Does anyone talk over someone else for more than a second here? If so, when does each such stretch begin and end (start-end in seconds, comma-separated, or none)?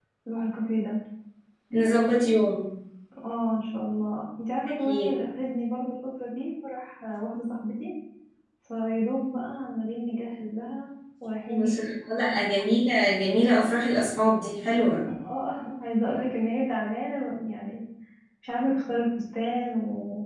none